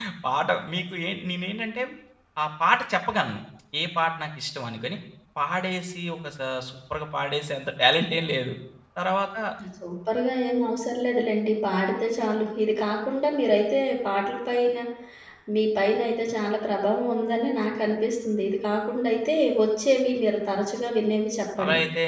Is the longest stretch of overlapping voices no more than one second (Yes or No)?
Yes